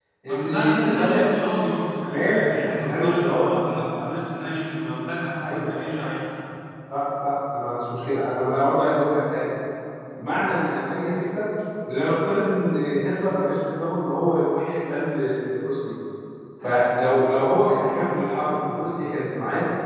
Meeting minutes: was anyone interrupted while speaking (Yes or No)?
Yes